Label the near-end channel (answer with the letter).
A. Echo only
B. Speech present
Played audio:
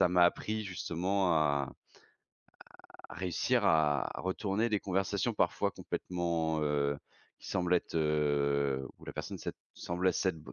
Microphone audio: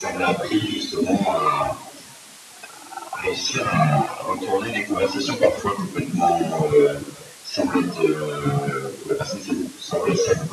A